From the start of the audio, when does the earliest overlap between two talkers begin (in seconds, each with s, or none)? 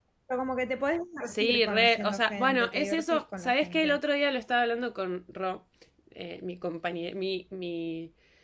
1.3 s